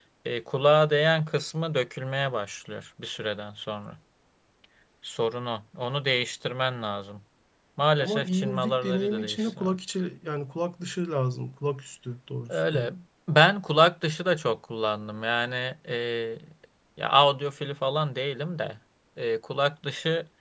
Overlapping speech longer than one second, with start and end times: 8.0-9.8

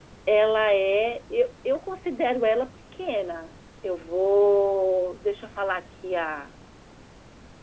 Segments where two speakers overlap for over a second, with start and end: none

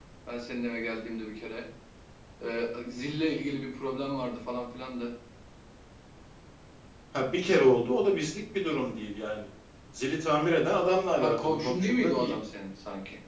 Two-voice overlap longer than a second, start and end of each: 11.1-12.3

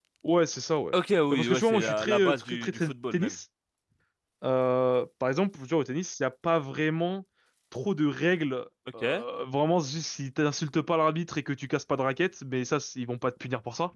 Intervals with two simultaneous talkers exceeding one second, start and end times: 1.3-3.4

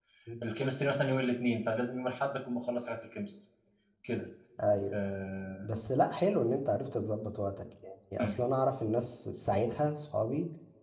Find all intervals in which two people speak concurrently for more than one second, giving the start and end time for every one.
none

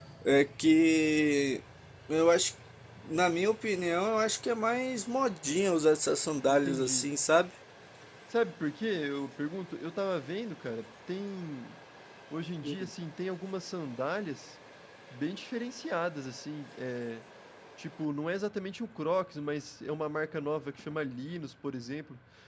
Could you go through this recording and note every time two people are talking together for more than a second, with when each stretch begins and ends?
none

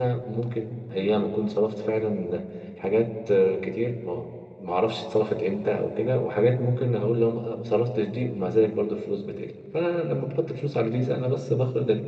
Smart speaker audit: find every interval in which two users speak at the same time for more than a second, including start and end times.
none

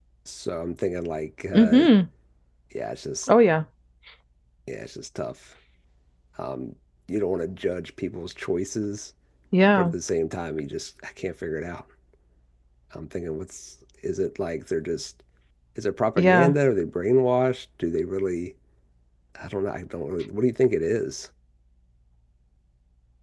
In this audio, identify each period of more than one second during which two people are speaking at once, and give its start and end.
none

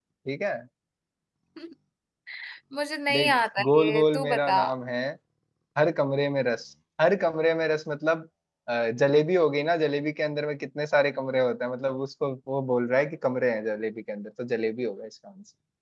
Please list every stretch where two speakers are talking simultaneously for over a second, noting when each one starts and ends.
3.1-4.6

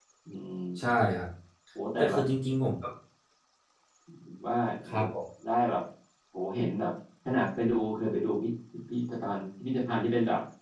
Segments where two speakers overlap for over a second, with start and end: none

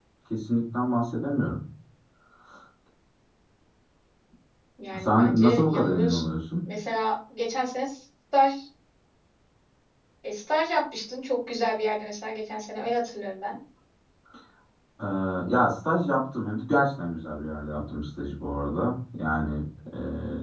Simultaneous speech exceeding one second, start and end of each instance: 5.0-6.3

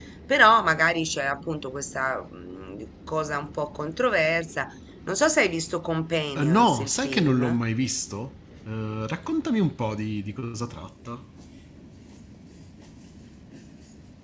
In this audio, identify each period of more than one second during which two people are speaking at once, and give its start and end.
6.4-7.6

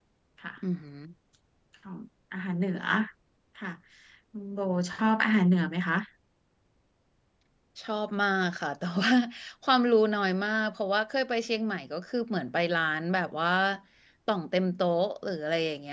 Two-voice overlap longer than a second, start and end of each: none

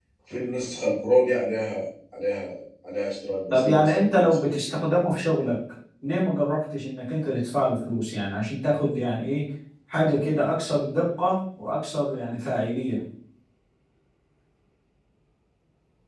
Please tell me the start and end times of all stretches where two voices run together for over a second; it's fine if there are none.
3.5-4.7

